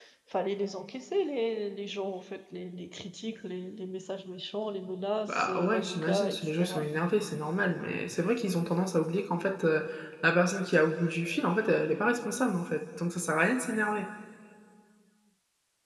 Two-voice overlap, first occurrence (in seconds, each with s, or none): 5.3 s